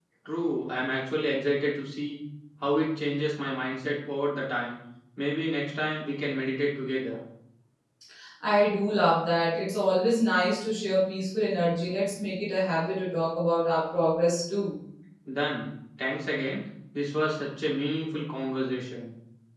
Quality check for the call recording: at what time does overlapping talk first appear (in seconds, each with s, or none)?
none